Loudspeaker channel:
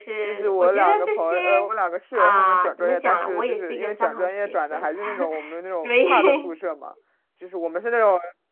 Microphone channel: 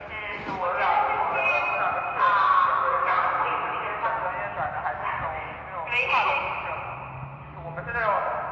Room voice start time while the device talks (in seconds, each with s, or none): none